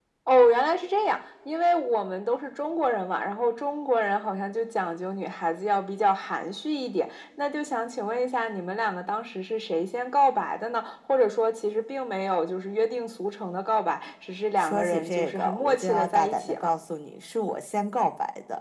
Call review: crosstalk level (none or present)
present